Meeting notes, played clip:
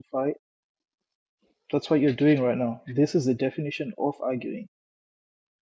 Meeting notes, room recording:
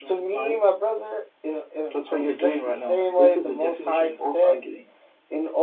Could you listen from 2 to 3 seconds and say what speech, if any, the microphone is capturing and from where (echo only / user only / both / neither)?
both